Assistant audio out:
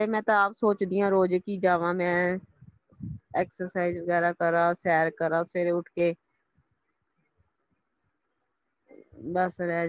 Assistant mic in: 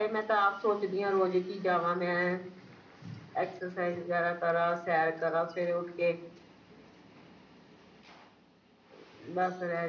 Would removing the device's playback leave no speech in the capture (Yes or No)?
Yes